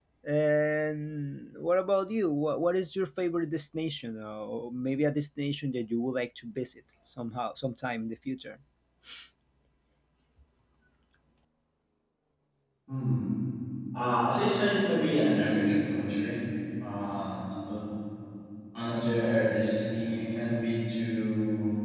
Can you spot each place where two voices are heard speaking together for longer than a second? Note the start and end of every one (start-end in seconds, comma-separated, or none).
none